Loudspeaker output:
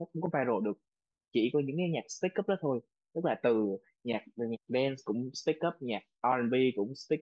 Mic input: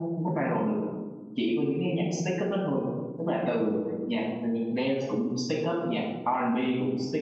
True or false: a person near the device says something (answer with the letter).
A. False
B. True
A